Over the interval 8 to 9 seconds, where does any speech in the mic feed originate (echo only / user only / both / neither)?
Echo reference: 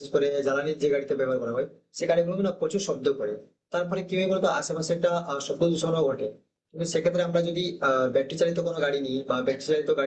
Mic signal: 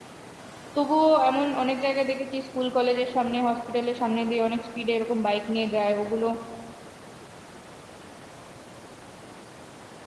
neither